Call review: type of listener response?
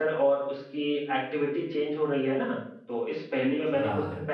listening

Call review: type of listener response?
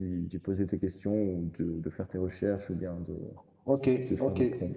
taking over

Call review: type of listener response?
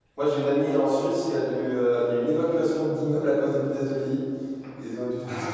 listening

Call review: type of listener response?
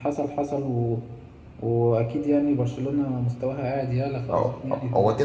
taking over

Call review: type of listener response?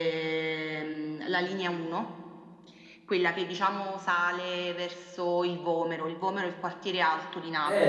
taking over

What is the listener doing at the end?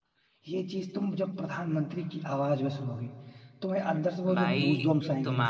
taking over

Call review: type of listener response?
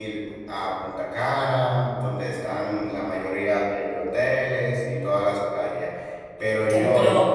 taking over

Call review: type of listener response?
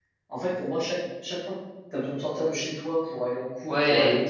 listening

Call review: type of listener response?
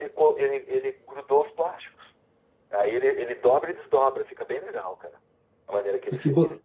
taking over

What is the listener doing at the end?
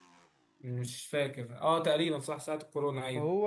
taking over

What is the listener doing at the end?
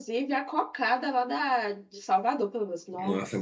taking over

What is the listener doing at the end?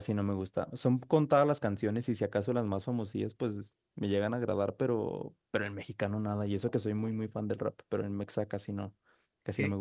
taking over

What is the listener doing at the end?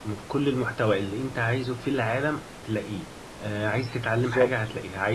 listening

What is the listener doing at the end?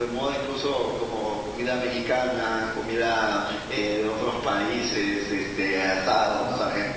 listening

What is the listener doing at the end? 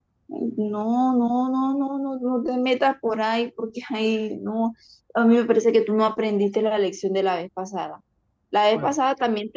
listening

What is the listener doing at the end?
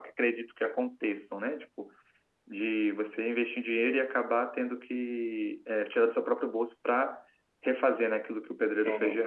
taking over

